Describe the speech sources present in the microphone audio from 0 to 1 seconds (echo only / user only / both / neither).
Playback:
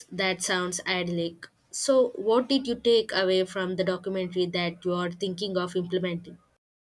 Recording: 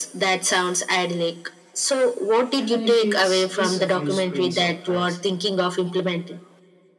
echo only